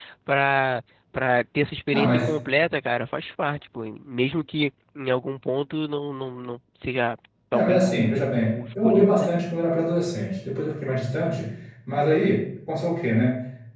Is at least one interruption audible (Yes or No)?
Yes